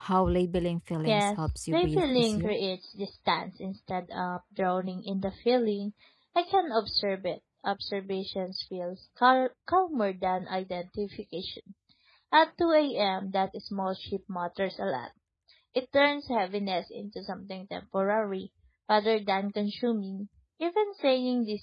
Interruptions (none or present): present